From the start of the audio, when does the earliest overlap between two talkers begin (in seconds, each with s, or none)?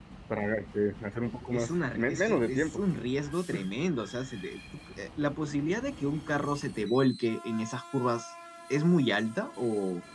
1.5 s